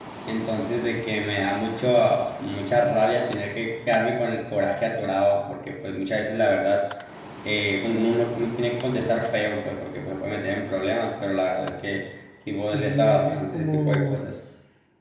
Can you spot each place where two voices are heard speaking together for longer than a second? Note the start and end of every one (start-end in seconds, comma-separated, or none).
12.6-14.2